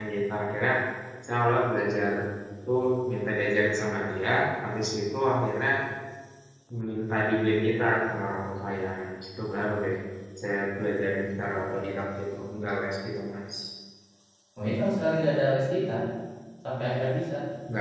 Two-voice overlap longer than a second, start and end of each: none

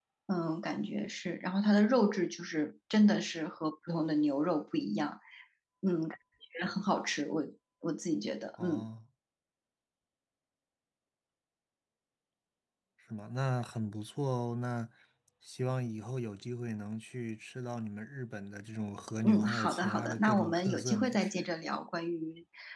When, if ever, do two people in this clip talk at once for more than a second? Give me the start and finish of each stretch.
19.2-21.5

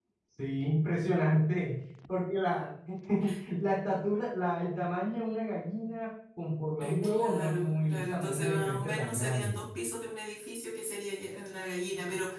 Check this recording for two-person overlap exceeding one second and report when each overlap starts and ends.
6.8-9.6

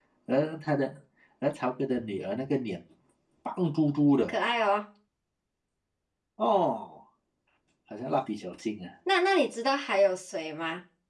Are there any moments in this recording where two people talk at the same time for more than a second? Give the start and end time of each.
none

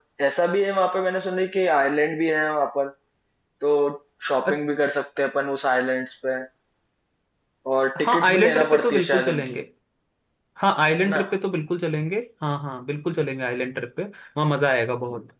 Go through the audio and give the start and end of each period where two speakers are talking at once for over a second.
8.0-9.6

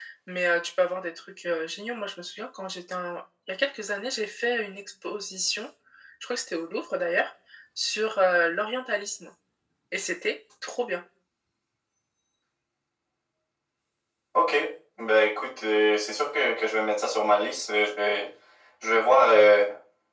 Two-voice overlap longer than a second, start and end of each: none

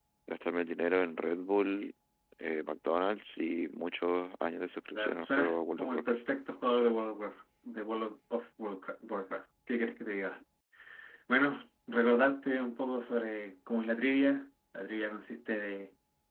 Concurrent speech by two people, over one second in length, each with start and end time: 4.9-6.2

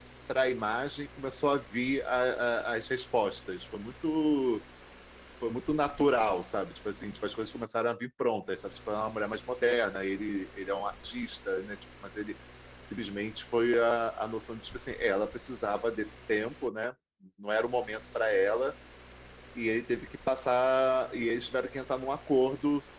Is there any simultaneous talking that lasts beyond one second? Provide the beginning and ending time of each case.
none

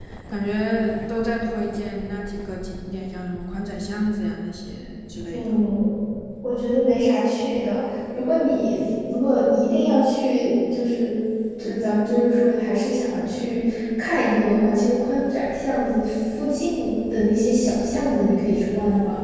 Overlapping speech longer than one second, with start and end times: none

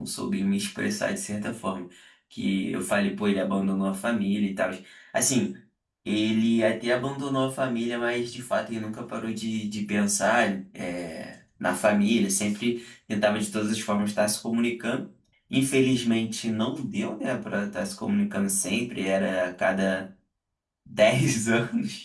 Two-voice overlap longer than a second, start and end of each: none

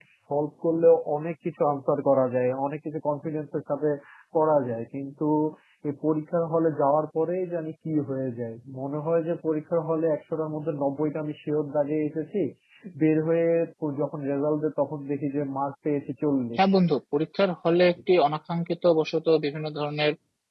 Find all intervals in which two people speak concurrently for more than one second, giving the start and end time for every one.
none

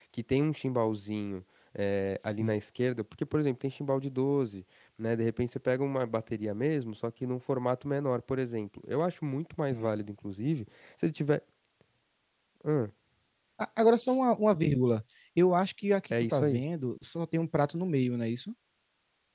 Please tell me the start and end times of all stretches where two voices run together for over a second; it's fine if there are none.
none

